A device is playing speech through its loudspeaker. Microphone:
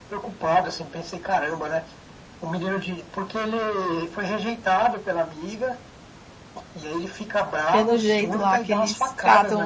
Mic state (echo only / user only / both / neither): both